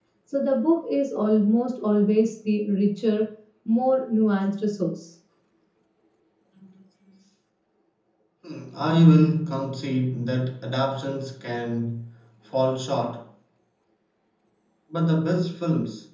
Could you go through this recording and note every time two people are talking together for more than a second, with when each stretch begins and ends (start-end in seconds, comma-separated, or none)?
none